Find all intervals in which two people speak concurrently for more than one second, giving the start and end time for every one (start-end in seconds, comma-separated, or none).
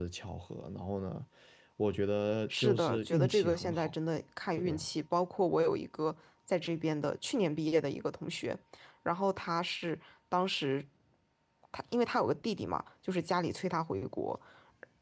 2.5-3.9